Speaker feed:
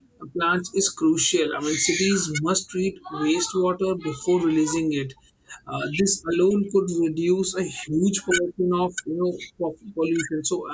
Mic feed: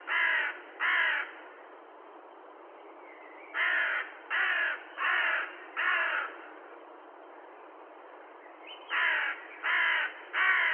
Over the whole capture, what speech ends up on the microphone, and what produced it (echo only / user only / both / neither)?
neither